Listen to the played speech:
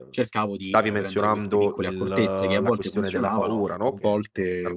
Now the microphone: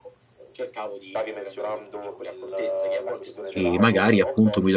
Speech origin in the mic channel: both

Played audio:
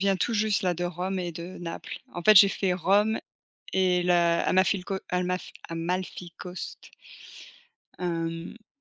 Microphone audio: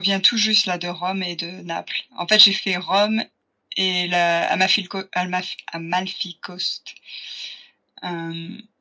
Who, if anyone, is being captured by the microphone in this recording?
echo only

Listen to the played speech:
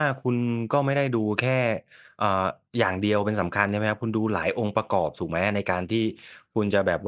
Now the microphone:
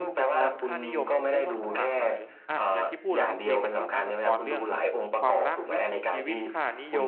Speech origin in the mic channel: both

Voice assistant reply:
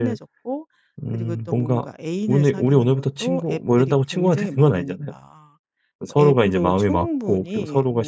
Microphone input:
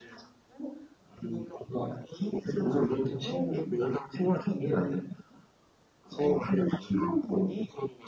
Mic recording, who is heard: both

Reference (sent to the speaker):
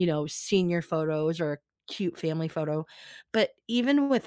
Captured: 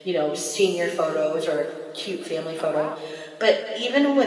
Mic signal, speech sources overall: both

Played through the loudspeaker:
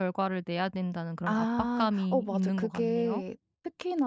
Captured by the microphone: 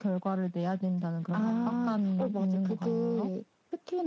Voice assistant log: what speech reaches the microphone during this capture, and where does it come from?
both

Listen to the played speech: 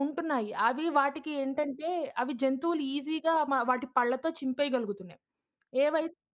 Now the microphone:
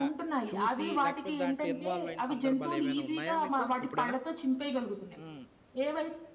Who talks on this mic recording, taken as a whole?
both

